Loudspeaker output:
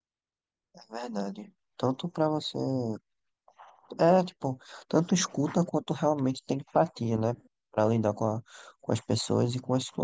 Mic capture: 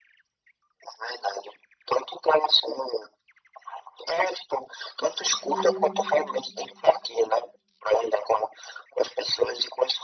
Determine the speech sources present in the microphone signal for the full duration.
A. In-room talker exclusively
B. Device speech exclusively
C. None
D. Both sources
D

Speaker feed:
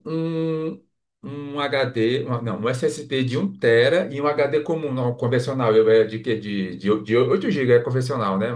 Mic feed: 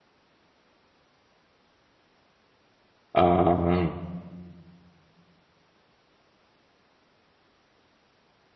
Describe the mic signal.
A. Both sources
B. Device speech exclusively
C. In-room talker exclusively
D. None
C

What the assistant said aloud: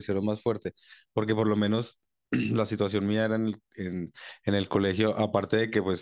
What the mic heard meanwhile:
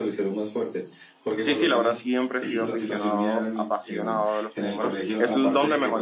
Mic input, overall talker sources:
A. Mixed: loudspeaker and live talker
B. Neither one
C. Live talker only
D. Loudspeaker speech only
A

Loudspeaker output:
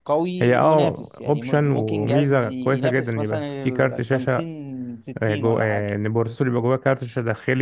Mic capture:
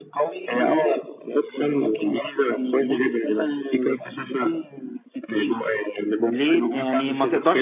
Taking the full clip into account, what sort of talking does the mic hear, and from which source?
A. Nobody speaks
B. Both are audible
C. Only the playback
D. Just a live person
B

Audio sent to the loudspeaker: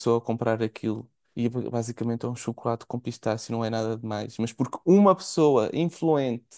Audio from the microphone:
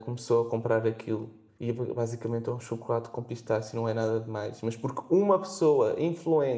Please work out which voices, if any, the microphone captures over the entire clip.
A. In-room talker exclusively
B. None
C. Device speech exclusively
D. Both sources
C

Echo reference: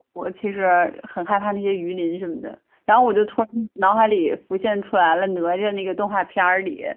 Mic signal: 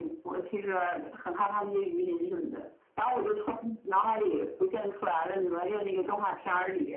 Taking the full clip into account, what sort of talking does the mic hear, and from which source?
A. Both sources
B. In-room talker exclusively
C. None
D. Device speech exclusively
D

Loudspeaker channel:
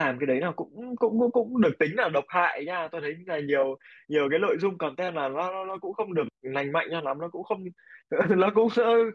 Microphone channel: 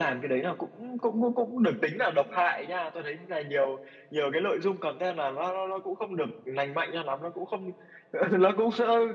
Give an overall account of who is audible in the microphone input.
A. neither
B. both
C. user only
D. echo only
D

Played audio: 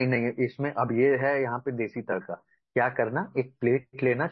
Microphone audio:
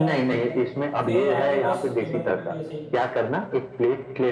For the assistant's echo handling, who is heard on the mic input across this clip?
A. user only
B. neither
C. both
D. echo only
C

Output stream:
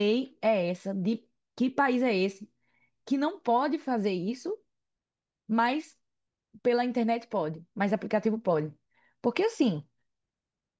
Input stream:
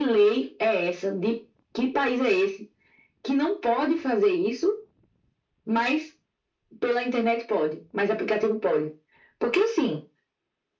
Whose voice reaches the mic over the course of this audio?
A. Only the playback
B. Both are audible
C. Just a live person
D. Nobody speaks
A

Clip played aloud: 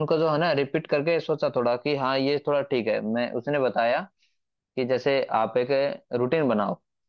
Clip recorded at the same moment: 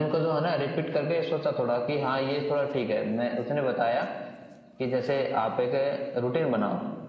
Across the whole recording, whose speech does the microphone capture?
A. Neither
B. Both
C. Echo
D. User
C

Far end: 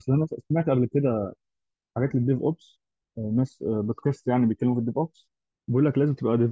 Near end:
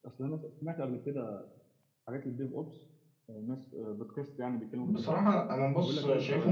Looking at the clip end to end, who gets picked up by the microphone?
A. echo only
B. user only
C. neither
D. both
D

